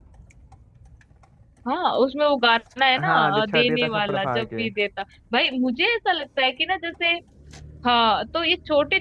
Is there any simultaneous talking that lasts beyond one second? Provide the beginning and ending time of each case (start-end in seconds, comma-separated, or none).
3.0-4.6